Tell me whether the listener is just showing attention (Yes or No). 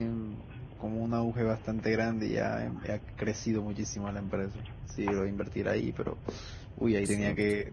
Yes